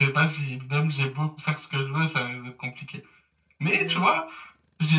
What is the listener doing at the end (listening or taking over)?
listening